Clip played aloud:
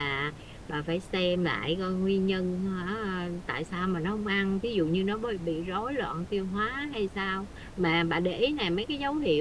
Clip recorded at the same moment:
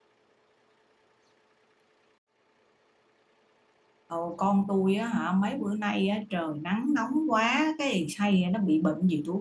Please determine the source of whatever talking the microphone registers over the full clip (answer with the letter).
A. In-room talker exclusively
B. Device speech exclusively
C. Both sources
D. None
A